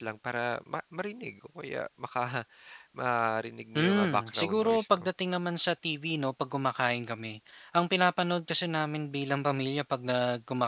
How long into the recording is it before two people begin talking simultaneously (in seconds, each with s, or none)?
3.8 s